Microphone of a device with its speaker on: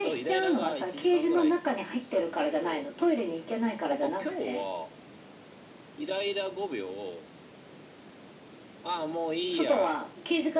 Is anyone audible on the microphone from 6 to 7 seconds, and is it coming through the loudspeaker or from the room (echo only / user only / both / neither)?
user only